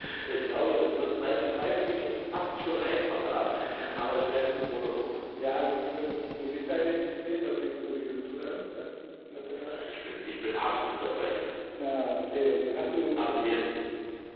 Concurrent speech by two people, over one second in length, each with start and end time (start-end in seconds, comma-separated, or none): none